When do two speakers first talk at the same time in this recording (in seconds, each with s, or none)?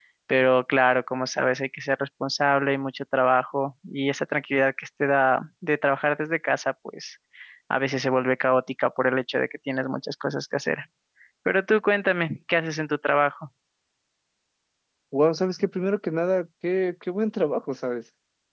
none